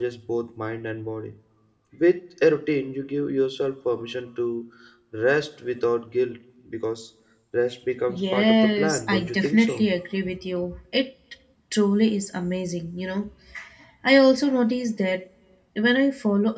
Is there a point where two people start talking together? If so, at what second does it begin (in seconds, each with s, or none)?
8.1 s